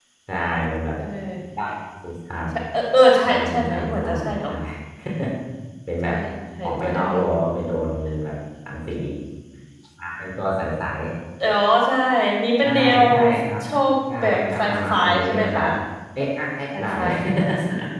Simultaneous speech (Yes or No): Yes